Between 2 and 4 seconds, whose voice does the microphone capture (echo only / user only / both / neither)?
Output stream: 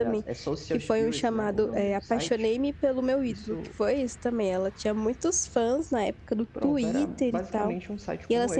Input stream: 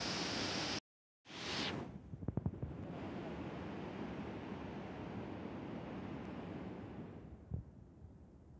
neither